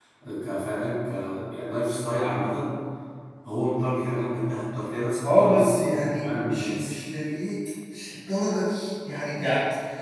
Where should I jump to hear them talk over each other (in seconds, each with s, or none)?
5.2 s